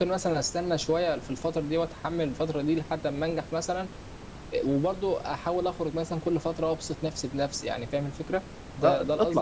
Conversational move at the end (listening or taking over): taking over